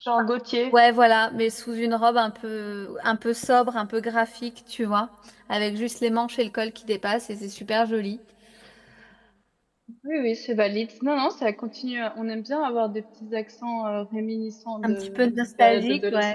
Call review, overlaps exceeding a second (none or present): present